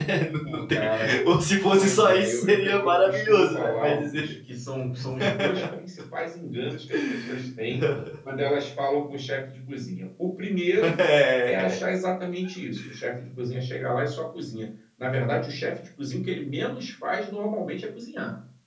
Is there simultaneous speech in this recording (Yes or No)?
Yes